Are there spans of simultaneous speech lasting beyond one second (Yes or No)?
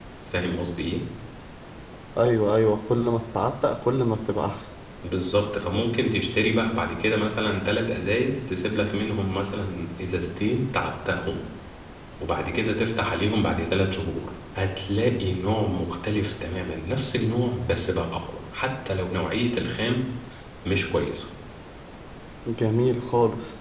No